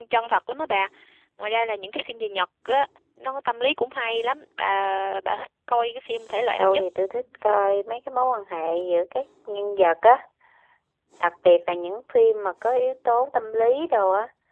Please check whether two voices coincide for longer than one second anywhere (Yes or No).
No